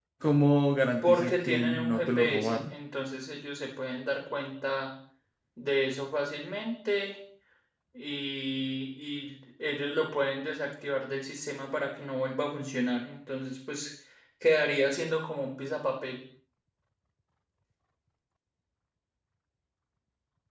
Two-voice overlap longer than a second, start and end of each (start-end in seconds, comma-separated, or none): 1.0-2.7